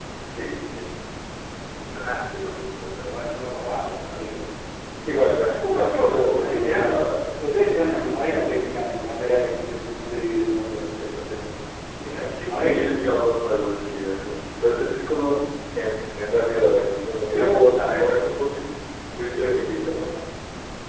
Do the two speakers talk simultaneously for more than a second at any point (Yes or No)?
Yes